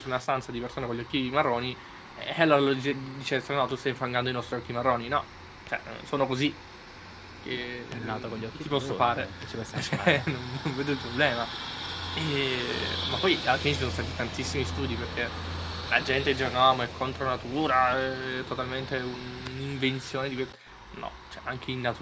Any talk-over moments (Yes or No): Yes